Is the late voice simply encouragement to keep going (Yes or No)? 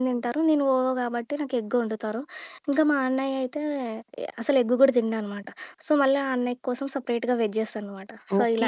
No